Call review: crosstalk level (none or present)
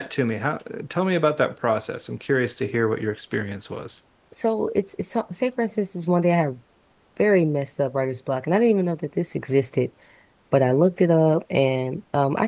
none